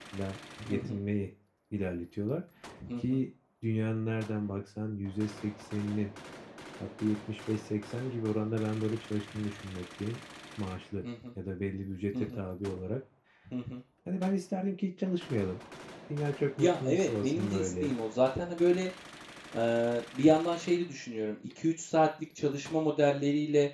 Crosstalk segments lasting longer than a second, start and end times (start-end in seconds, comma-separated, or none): 16.6-18.0